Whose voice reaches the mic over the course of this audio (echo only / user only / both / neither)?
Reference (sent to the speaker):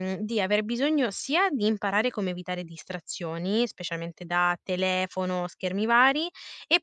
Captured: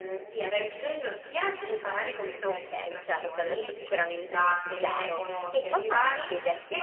both